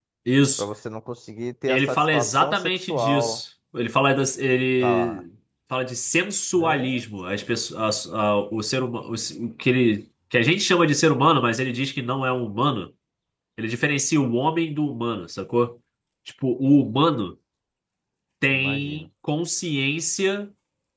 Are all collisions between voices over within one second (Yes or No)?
No